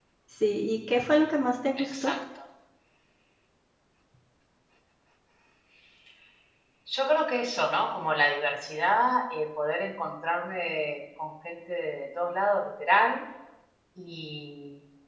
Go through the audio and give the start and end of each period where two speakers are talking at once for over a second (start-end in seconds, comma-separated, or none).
none